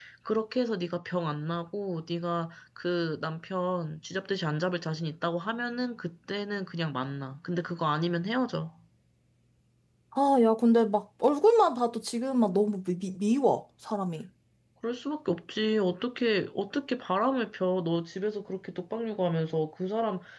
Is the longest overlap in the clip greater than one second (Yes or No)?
No